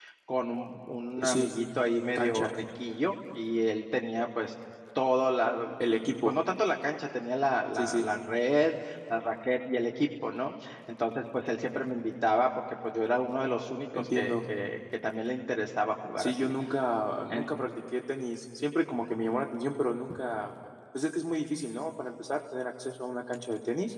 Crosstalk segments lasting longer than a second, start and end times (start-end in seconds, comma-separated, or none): none